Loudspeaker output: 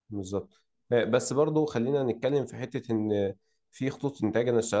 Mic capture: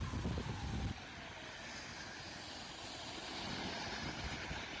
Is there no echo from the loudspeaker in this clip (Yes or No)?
Yes